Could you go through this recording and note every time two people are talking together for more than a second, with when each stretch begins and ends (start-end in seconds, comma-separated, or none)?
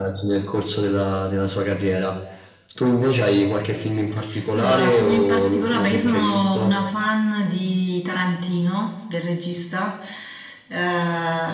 4.5-6.7